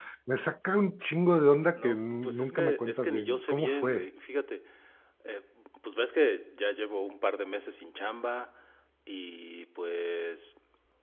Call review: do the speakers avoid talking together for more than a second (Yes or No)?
No